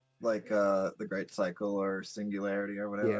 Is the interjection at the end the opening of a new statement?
Yes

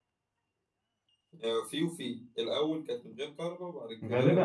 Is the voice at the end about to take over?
Yes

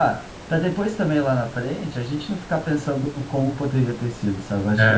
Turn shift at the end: No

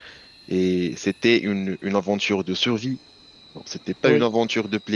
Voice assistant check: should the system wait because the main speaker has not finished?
Yes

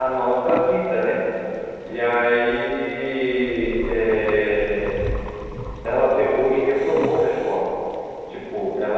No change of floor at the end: No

